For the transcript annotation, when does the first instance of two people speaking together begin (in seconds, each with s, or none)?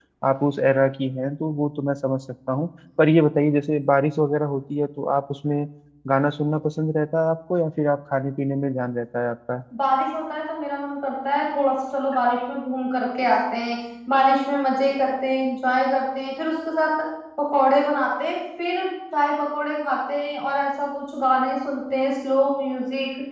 none